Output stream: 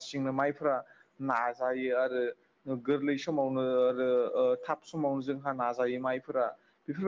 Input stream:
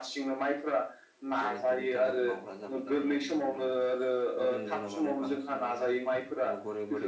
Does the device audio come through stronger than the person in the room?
Yes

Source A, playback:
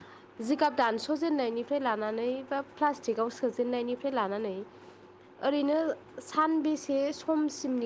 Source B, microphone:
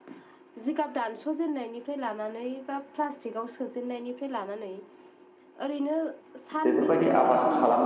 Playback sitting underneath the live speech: Yes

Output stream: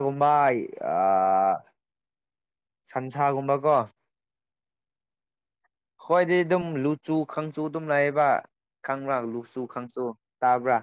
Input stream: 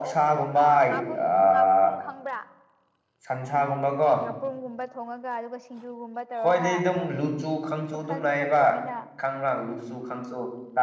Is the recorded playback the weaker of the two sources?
No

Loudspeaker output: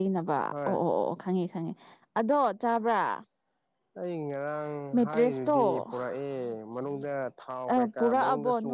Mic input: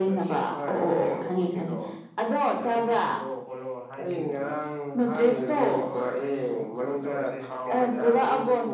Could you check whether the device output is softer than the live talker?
No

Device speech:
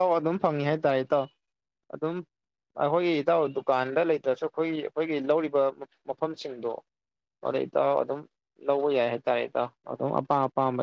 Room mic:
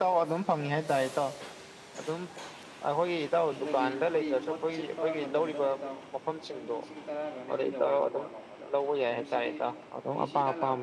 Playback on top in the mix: Yes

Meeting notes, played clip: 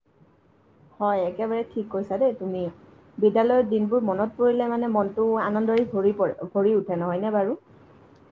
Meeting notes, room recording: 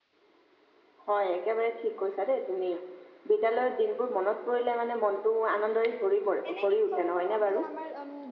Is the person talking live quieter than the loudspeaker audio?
Yes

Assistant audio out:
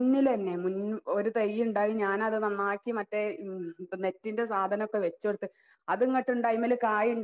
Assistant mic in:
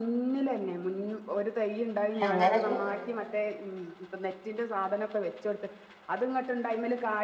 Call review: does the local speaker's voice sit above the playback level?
Yes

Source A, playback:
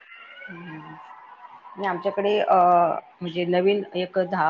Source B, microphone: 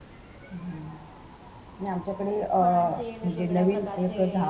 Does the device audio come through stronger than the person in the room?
Yes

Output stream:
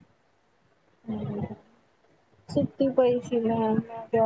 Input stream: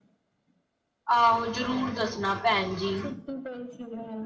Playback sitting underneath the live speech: Yes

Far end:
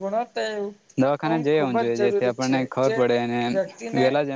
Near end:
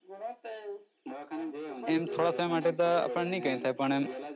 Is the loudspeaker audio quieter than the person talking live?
Yes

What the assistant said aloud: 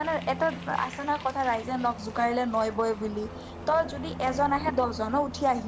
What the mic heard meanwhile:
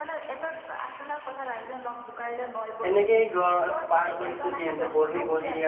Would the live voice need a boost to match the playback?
No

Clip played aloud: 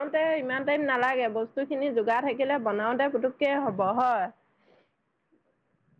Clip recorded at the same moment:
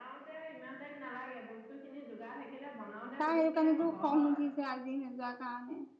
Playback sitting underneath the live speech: Yes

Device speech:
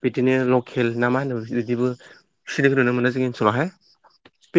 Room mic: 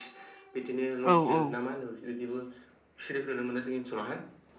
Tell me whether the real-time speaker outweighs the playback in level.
Yes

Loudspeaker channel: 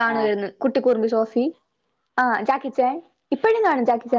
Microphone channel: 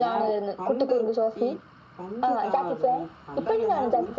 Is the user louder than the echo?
No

